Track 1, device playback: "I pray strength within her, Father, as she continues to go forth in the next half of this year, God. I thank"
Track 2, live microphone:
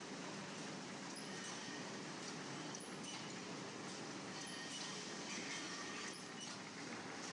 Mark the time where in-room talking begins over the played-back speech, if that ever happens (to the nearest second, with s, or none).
none